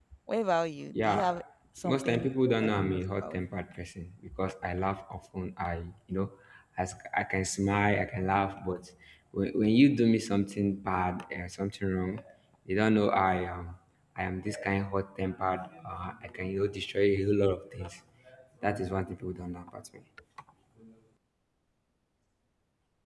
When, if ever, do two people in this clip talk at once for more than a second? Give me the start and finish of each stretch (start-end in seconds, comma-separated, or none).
1.8-3.4